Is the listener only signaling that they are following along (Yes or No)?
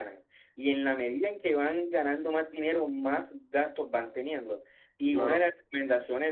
Yes